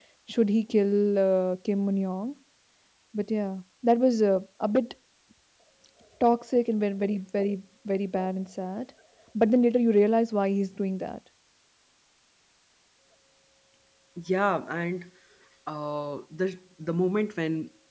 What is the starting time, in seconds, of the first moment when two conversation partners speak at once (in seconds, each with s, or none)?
none